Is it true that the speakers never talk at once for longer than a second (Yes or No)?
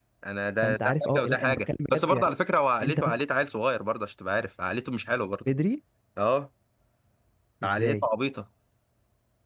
No